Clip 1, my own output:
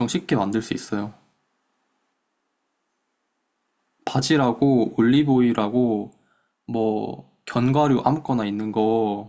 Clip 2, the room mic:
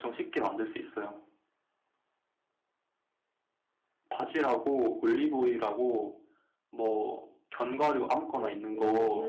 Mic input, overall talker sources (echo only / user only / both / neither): both